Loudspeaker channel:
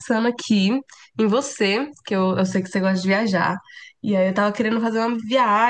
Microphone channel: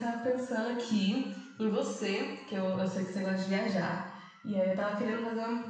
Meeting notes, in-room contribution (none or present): none